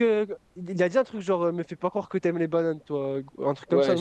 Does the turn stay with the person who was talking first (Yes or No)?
No